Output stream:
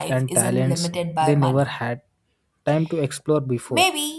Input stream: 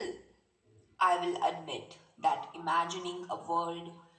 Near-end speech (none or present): present